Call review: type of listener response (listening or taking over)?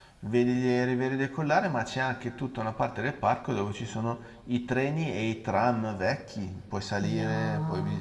taking over